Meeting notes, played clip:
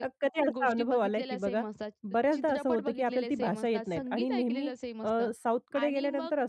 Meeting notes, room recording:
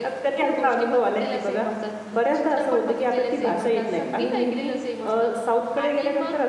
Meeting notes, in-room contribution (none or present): none